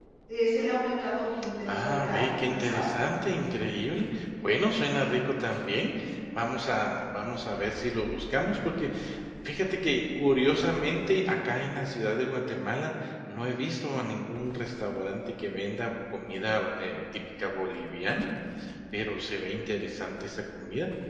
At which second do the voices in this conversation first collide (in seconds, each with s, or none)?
1.7 s